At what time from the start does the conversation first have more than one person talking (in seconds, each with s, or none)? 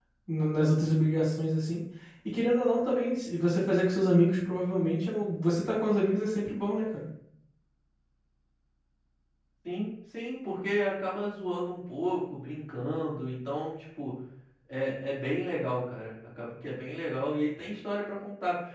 none